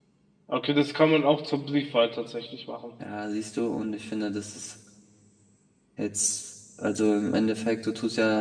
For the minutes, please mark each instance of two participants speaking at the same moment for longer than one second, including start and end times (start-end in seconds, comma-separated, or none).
none